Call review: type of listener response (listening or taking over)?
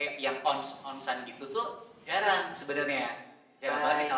taking over